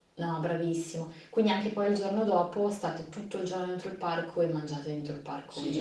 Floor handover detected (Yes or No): Yes